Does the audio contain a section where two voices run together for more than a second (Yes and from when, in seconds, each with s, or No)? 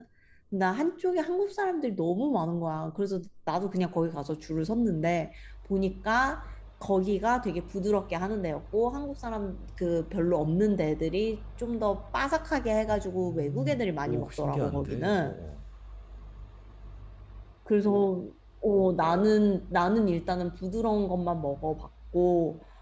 Yes, from 12.9 s